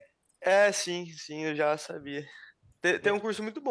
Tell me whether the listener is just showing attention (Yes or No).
Yes